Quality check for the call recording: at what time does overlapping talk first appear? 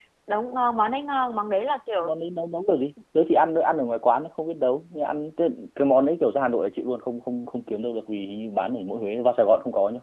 none

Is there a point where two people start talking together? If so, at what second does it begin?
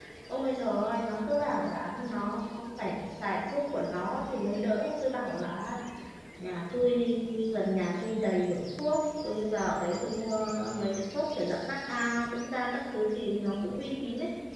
none

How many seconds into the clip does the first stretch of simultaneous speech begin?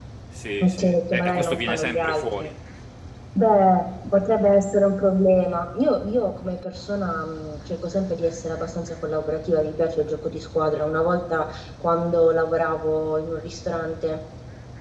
1 s

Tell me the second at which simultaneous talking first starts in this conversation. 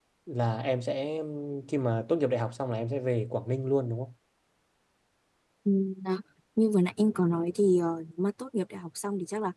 none

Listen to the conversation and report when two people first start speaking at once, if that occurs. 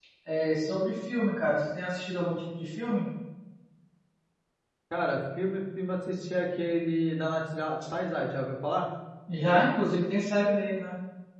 none

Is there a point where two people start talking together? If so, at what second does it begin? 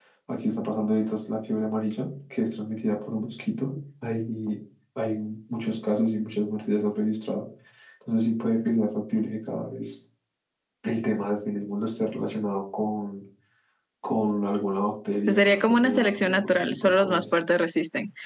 15 s

